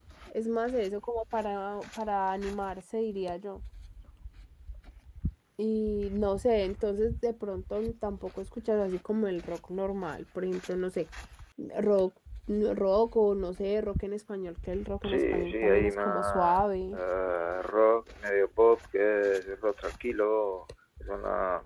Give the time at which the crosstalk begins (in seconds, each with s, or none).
15.0 s